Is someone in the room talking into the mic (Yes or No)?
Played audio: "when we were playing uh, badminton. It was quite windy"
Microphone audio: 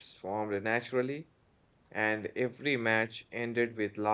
Yes